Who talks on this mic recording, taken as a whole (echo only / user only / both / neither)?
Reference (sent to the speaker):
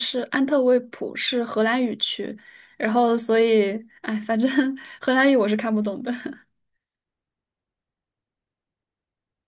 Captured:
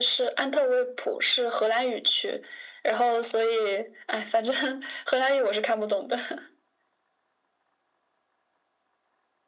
echo only